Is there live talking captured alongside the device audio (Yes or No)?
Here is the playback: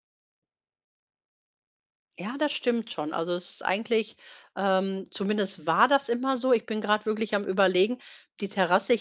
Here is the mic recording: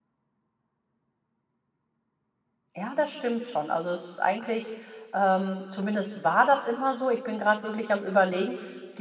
No